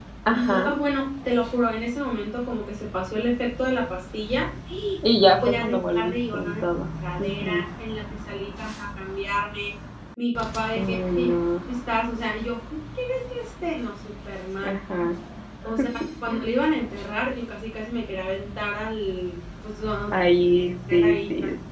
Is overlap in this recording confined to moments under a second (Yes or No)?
No